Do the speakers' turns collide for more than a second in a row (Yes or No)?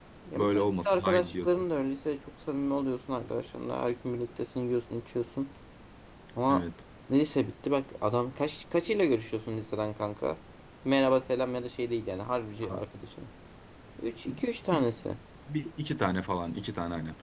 Yes